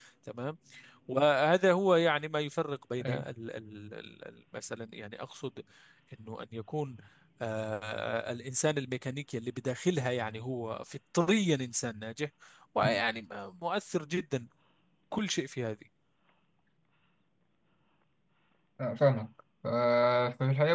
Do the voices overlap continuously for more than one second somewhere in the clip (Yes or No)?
No